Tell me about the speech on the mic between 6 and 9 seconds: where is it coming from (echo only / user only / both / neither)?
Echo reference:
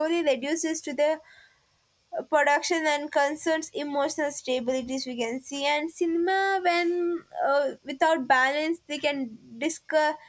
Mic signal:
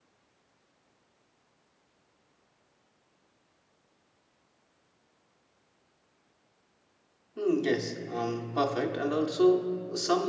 user only